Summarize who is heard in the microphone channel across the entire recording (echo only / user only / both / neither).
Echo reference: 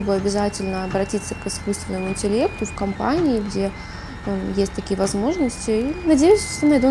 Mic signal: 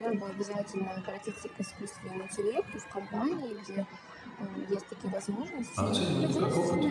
both